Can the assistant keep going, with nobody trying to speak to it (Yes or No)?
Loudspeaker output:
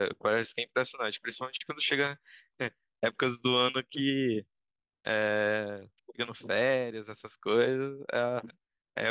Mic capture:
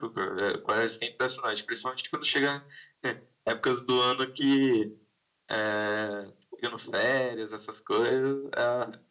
Yes